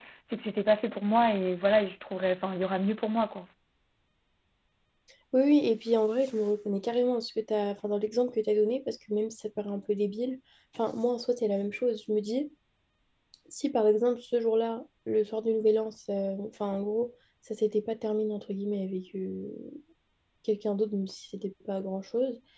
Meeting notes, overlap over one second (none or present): none